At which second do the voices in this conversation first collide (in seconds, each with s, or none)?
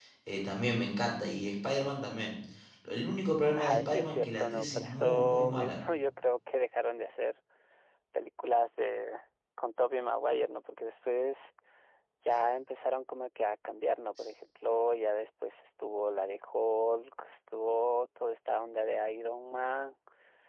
3.6 s